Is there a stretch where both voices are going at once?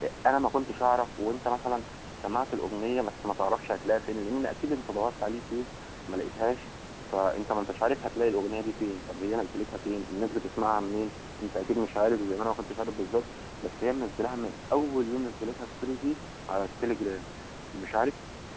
No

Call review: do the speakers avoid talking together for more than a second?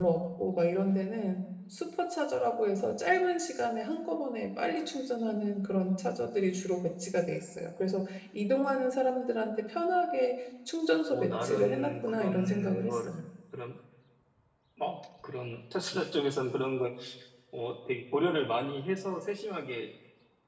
No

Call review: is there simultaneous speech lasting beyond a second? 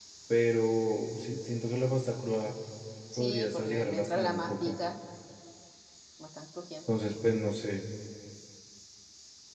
Yes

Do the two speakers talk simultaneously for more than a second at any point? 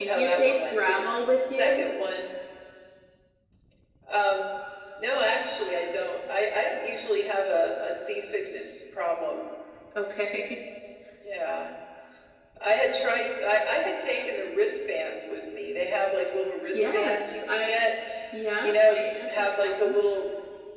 Yes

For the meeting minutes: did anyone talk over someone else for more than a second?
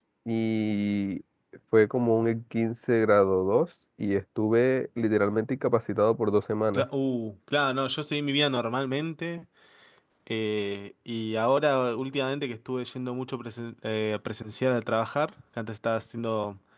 No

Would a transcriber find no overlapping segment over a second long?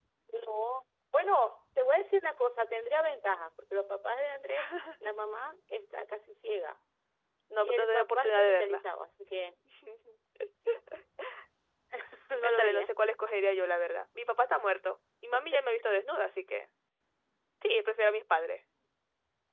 No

